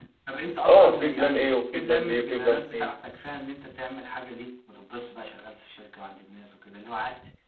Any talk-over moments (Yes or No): Yes